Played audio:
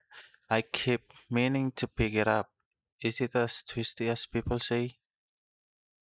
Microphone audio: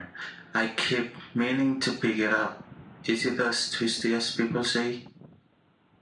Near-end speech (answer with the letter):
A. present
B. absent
B